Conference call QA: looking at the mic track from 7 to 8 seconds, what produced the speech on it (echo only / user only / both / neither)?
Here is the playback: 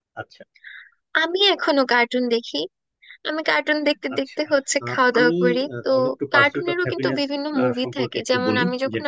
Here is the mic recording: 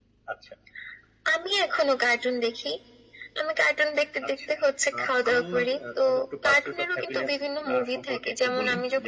echo only